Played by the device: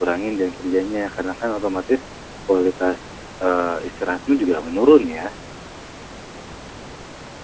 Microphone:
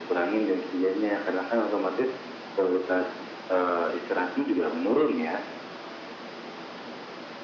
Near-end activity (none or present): none